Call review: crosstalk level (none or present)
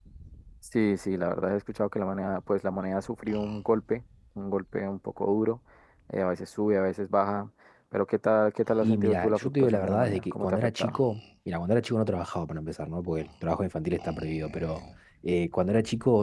present